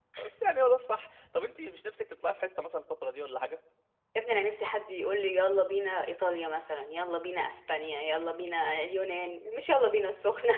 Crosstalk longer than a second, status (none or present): none